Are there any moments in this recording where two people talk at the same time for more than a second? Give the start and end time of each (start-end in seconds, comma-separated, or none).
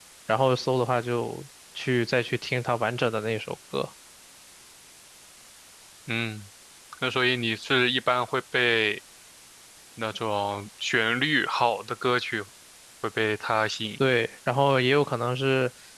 none